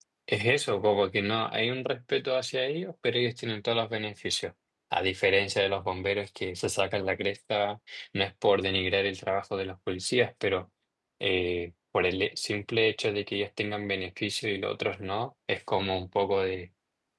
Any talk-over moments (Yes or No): No